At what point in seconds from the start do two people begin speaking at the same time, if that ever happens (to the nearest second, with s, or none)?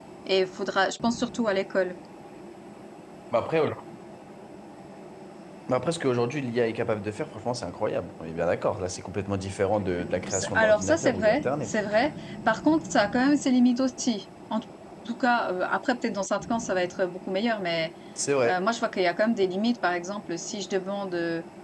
10 s